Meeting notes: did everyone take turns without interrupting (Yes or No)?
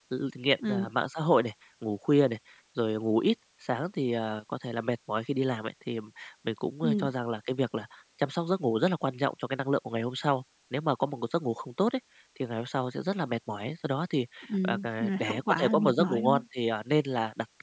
No